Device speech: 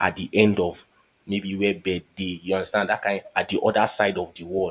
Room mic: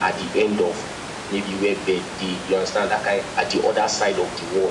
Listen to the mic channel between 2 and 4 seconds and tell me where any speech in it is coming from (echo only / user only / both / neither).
echo only